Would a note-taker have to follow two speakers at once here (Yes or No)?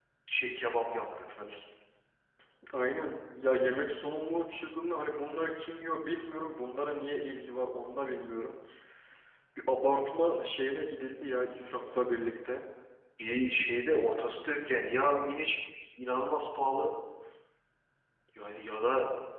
No